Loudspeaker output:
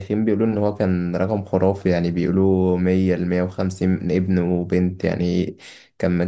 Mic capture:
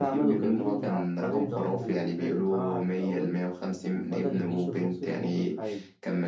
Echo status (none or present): present